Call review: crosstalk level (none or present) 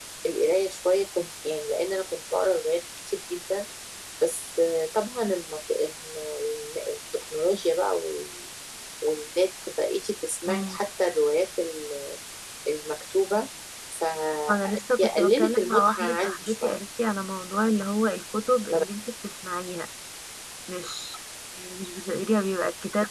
present